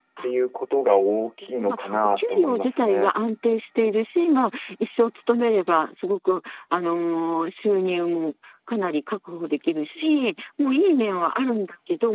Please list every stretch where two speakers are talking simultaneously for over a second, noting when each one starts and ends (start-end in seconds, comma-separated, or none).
1.6-3.1